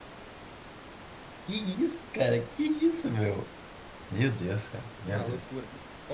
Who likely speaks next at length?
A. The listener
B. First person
A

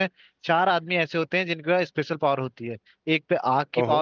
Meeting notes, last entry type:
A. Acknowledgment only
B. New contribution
A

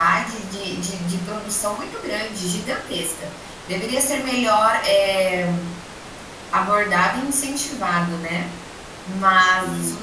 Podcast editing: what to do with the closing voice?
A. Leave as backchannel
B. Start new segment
A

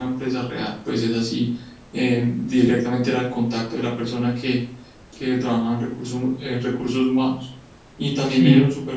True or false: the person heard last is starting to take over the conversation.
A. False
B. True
A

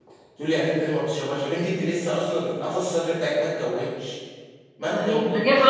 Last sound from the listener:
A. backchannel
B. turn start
B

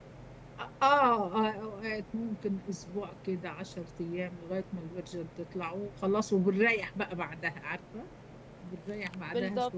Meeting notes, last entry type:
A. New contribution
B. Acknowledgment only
A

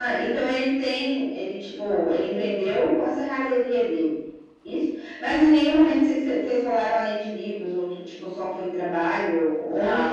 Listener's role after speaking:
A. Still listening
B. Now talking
B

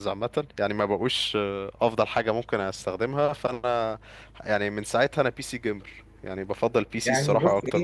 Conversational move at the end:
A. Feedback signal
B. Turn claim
B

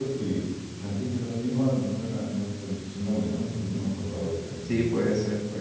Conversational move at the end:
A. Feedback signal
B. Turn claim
B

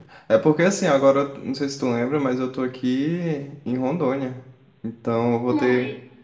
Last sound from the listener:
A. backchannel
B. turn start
A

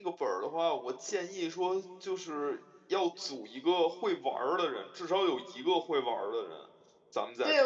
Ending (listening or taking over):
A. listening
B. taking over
B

